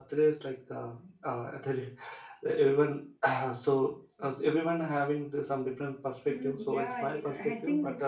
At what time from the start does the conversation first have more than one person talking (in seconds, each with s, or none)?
6.3 s